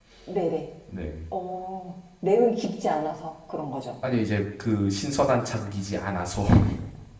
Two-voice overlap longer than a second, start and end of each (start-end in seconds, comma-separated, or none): none